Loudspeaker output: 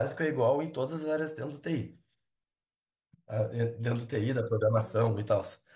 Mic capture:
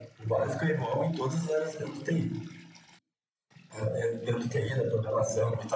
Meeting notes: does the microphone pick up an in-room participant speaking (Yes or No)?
No